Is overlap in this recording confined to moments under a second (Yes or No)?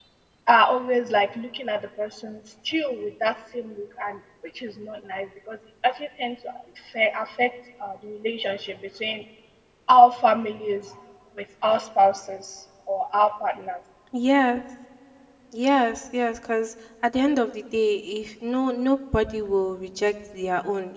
Yes